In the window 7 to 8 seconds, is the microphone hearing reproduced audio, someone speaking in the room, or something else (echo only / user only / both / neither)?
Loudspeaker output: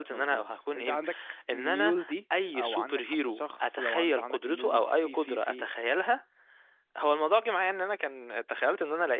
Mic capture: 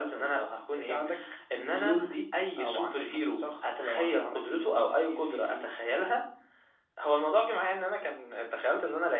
echo only